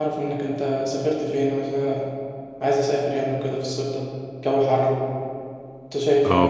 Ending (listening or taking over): taking over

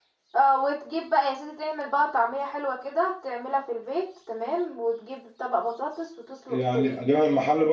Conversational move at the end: taking over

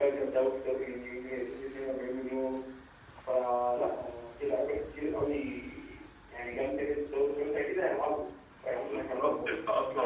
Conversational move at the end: taking over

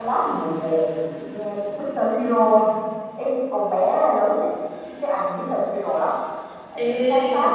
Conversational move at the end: listening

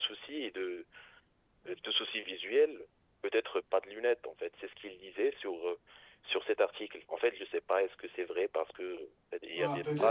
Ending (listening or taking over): taking over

